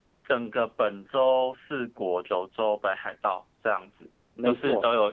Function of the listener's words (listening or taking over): listening